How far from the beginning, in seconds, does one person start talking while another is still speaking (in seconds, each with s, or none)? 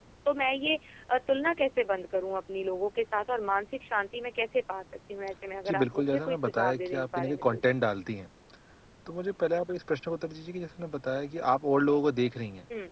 5.7 s